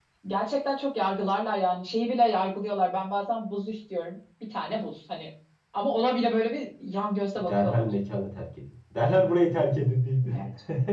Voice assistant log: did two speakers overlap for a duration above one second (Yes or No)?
No